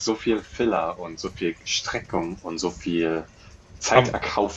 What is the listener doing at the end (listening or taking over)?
listening